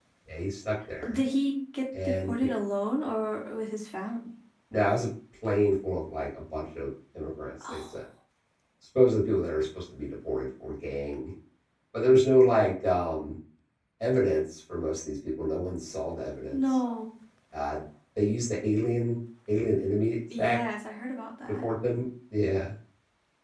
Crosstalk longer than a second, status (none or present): none